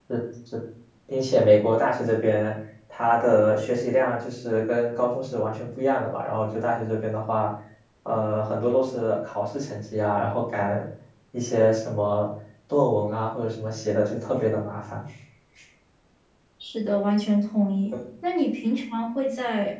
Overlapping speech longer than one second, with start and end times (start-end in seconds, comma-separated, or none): none